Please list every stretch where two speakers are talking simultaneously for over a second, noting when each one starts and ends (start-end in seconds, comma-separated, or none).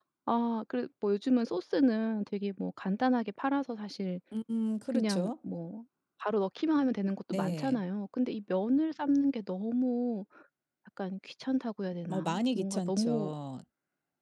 12.1-13.3